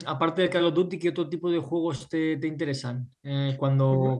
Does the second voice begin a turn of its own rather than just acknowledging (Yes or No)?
No